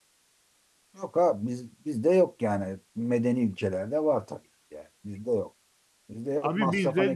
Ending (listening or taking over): taking over